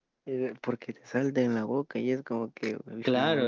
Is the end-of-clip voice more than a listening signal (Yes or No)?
Yes